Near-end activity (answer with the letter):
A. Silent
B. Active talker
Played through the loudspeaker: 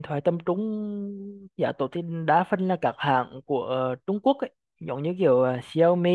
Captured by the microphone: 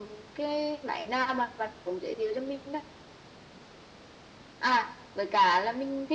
B